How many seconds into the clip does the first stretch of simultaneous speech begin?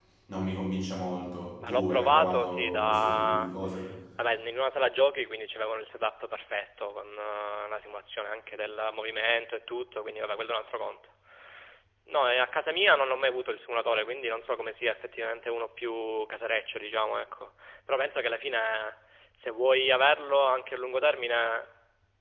1.6 s

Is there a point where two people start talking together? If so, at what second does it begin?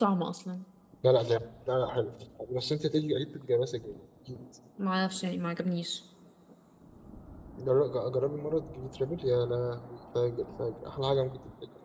none

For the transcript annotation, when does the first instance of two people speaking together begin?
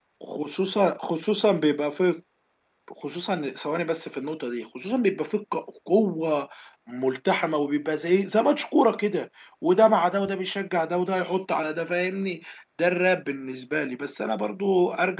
none

